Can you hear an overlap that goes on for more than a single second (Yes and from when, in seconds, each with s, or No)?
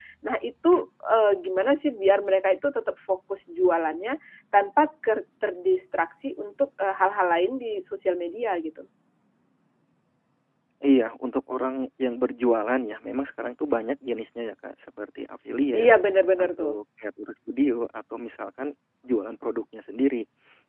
No